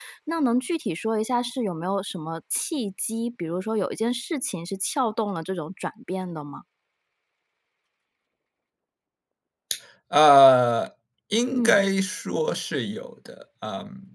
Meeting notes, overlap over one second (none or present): none